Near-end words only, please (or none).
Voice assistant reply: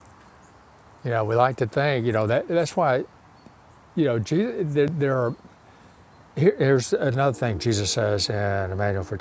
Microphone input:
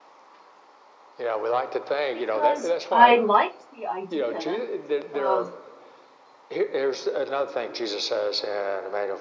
because I liked the idea of